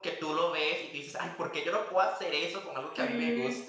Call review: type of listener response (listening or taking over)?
taking over